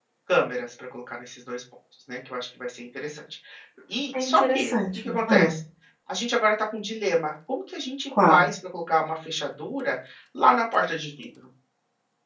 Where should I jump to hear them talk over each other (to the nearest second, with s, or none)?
4 s